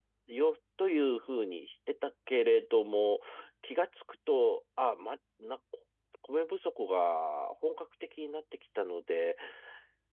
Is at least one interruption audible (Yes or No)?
No